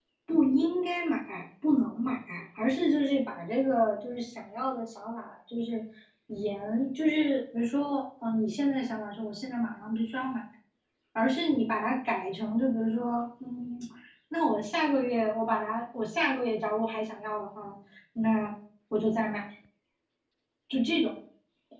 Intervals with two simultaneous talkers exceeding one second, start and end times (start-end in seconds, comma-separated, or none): none